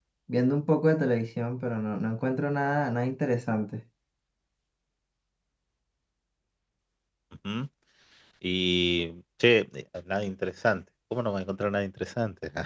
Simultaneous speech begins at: none

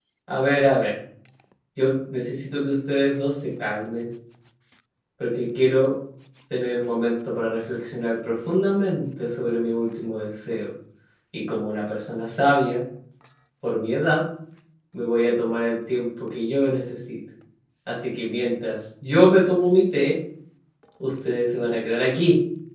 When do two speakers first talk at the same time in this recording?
none

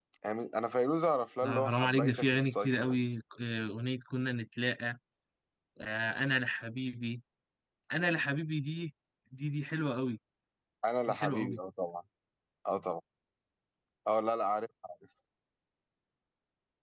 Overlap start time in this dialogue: 1.4 s

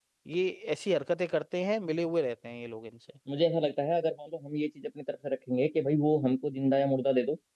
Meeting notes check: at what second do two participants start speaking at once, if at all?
none

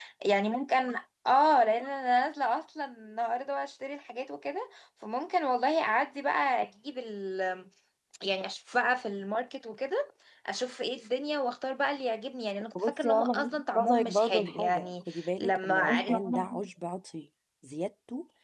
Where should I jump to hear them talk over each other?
12.8 s

